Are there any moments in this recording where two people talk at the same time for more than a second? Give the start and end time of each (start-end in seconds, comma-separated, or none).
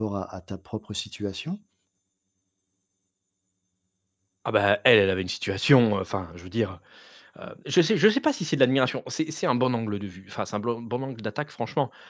none